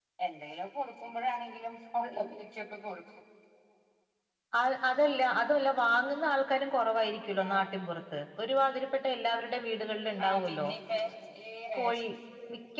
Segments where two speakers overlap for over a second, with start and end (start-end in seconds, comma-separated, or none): none